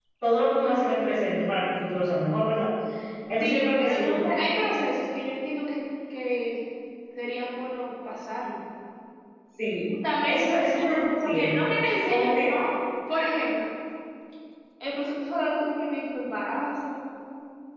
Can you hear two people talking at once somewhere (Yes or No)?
Yes